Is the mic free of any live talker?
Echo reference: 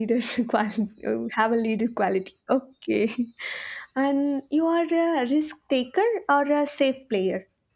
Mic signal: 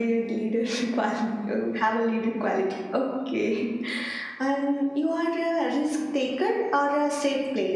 Yes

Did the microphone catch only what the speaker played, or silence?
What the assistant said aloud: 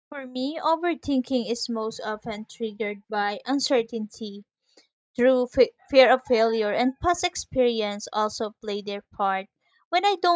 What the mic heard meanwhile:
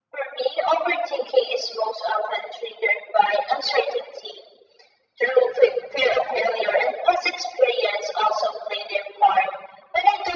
Yes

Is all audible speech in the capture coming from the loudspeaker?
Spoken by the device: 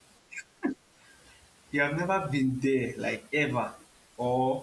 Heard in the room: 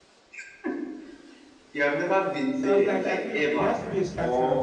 No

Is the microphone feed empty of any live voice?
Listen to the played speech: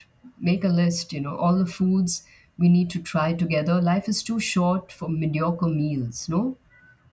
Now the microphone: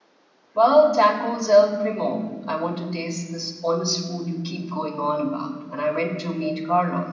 No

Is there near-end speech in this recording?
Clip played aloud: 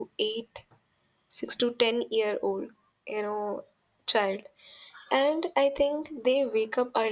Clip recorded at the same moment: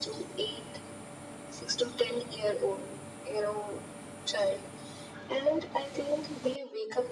No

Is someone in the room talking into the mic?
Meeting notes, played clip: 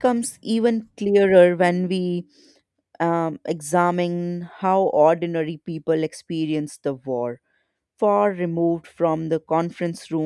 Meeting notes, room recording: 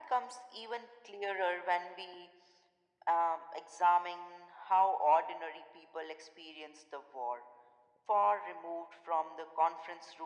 No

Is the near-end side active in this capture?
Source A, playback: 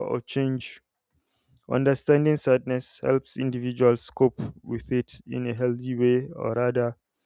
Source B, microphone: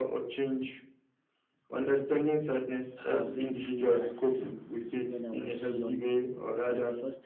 Yes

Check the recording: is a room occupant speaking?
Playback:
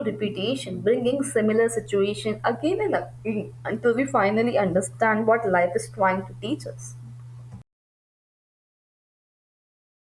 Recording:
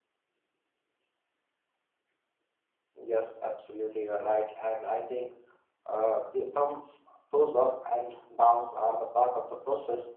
Yes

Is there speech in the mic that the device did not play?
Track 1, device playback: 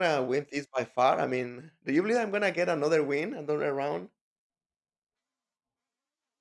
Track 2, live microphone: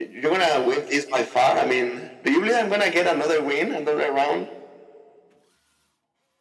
No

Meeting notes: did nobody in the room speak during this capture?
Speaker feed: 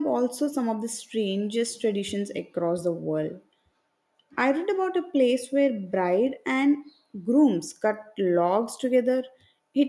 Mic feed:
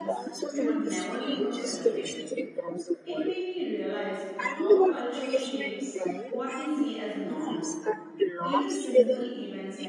No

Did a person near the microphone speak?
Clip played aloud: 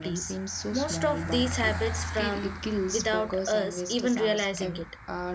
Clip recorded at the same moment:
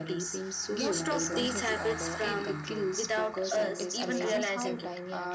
Yes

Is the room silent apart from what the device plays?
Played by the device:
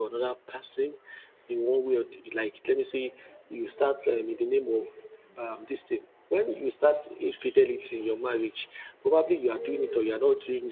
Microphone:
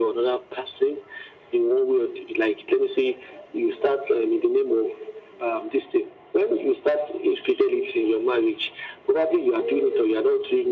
Yes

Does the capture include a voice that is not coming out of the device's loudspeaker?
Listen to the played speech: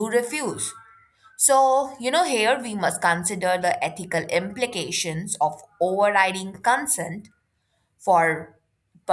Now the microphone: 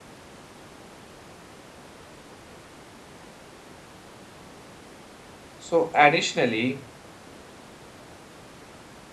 Yes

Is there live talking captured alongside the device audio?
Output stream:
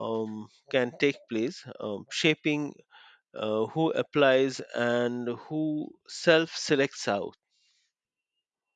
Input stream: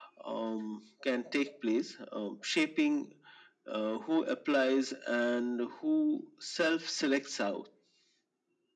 No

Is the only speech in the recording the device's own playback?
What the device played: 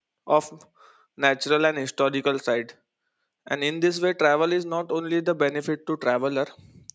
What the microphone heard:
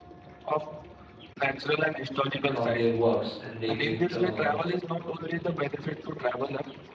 No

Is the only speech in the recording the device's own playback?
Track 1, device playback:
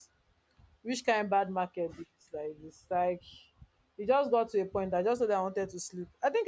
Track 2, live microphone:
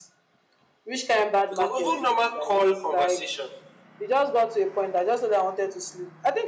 No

